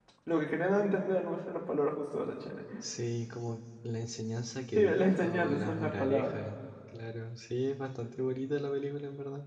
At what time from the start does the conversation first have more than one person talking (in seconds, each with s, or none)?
4.8 s